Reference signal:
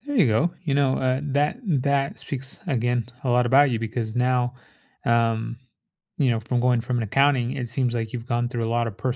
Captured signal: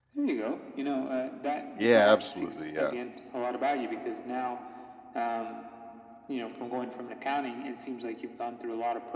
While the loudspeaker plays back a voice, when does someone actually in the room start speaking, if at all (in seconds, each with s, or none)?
1.7 s